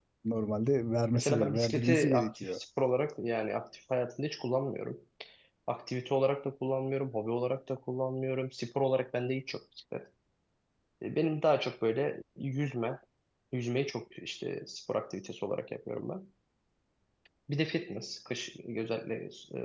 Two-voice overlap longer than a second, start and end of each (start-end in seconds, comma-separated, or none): 1.1-2.6